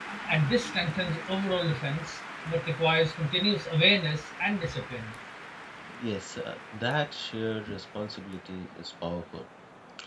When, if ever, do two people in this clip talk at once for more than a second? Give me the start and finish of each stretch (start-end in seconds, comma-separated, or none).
none